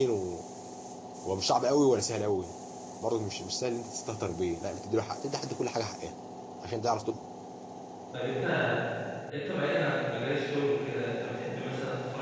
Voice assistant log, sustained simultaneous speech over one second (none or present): none